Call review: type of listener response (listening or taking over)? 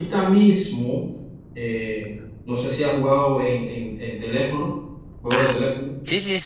taking over